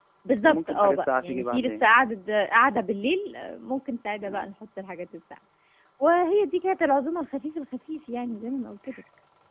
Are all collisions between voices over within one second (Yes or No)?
No